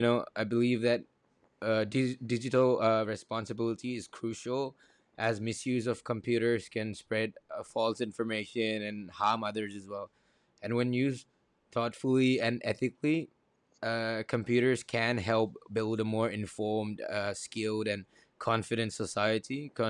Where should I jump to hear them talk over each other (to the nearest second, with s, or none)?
none